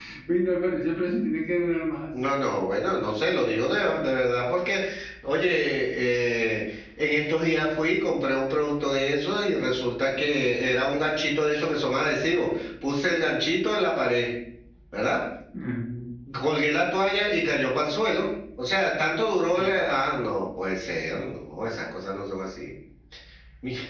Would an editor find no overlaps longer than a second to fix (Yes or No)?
Yes